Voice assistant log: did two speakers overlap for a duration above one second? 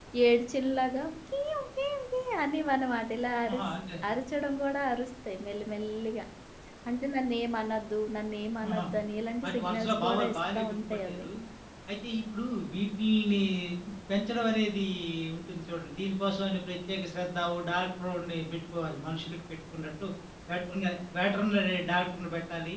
Yes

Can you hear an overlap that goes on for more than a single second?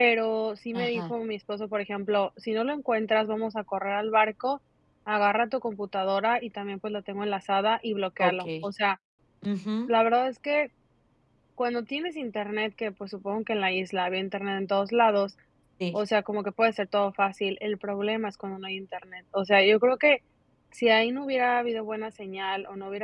No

